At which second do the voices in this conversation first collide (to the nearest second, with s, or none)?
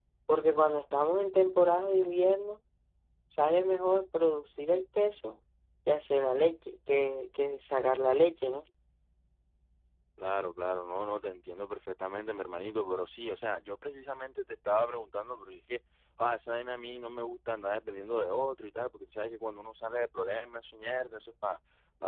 none